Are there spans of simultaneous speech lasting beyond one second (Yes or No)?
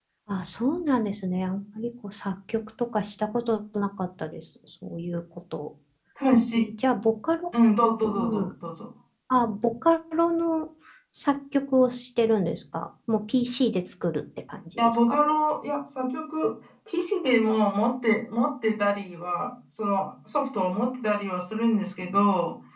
No